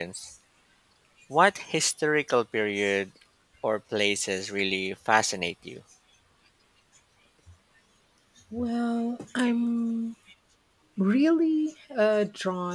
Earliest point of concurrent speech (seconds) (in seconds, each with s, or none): none